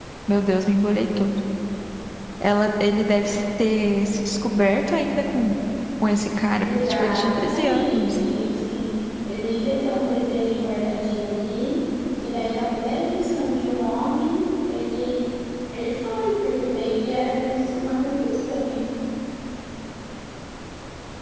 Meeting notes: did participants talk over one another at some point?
Yes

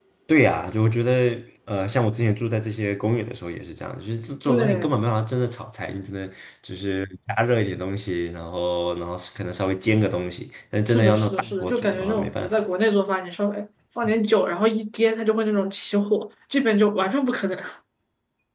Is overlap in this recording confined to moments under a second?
No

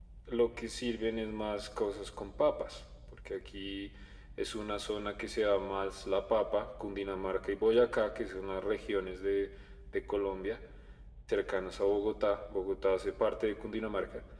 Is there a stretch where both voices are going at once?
No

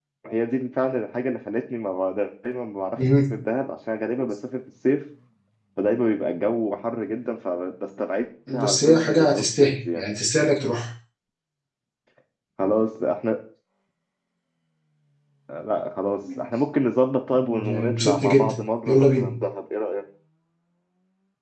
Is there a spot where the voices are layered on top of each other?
Yes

